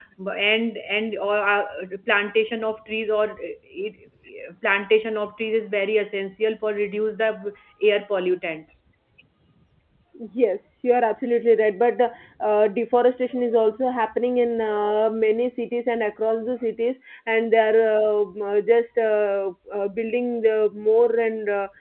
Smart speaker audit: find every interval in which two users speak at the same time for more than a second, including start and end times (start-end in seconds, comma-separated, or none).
none